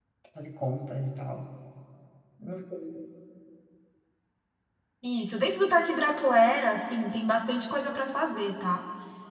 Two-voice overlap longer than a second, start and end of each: none

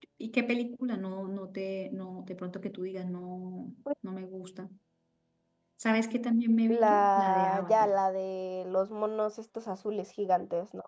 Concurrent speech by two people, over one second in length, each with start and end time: 6.7-7.9

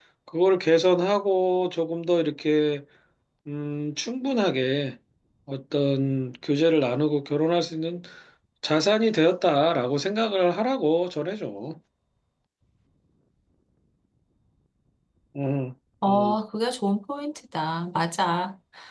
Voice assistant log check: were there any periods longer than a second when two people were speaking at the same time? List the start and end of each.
none

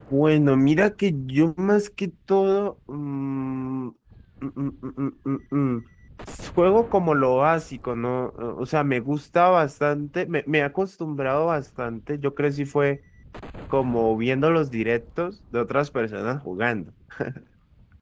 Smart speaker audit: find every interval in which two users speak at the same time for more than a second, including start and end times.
none

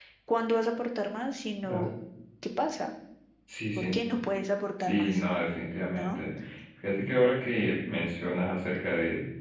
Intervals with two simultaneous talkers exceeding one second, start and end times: none

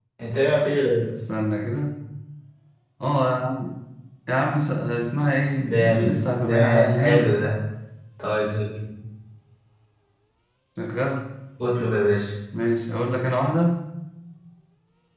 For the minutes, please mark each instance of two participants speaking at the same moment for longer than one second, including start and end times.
5.7-7.4

